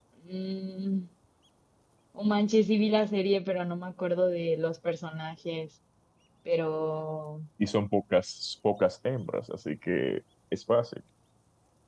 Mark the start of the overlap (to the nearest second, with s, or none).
none